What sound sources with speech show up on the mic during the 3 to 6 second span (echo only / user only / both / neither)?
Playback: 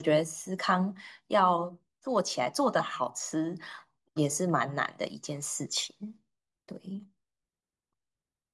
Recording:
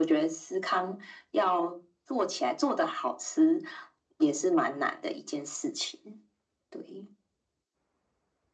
echo only